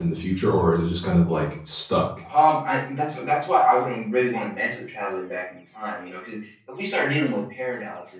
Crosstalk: none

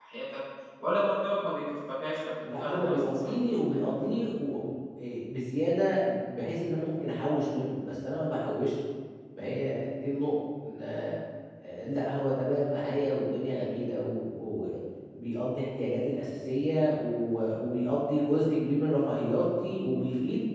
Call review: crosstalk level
present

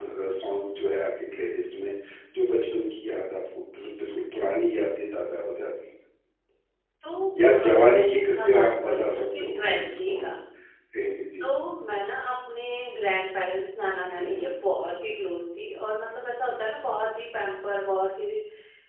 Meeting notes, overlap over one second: present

